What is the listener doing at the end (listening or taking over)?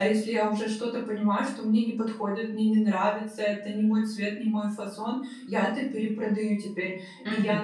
listening